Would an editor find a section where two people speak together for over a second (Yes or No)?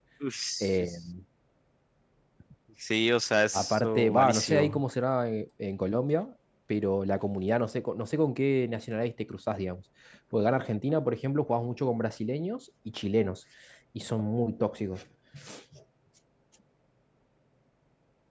Yes